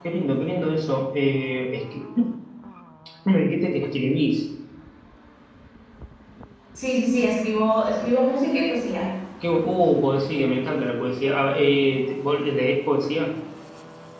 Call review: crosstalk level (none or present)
none